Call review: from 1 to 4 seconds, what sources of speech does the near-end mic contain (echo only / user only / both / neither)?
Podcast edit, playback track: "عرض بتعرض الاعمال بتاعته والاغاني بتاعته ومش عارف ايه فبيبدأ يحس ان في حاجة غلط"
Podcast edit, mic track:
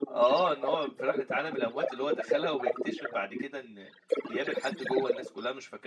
both